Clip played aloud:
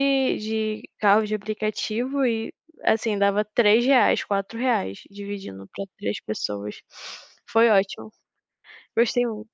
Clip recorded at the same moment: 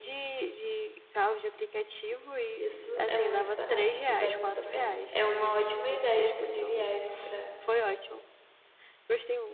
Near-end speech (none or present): present